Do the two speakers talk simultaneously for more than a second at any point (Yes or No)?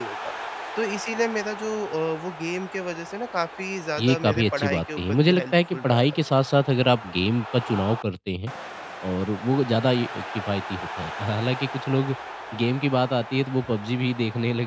Yes